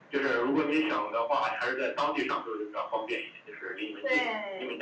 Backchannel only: No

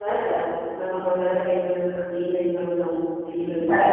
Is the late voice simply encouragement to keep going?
No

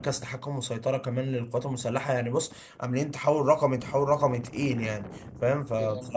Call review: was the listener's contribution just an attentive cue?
Yes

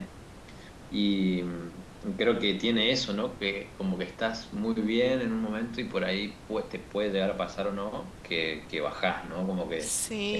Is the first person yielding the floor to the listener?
No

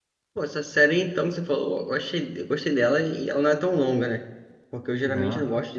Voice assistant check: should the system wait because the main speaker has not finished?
Yes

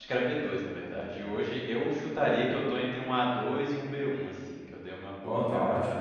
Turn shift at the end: Yes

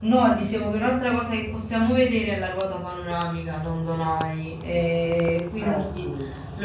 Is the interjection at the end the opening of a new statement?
No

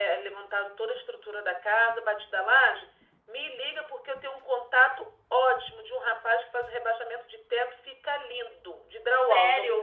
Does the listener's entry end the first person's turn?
Yes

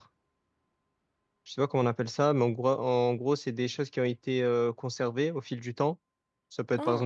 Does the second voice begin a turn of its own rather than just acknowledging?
No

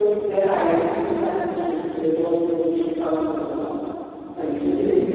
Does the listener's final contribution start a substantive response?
Yes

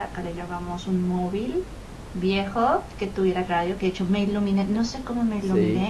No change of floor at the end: Yes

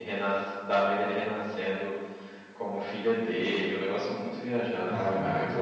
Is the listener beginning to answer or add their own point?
Yes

